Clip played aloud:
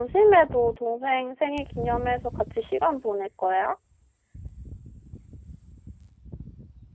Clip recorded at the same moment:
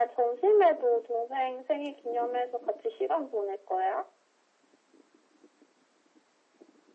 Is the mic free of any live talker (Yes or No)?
Yes